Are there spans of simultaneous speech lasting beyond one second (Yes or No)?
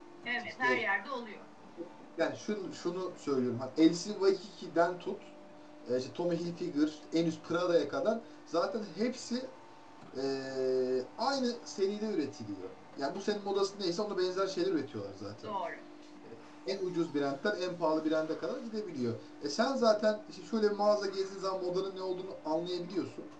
No